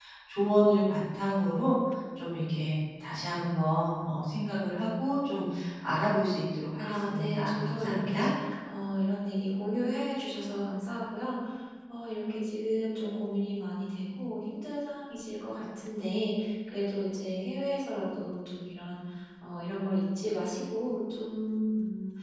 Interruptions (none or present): present